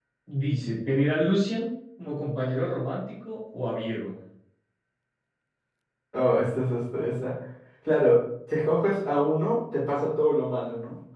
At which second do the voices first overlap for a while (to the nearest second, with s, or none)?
none